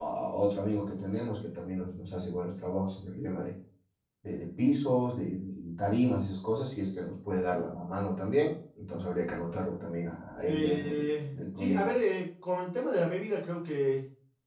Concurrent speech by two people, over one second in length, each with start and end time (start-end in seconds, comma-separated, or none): 10.5-11.8